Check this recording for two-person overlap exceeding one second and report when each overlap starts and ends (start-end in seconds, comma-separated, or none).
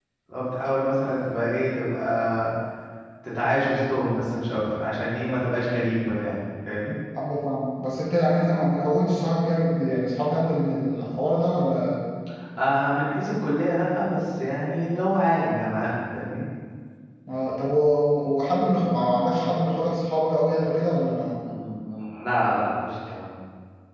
none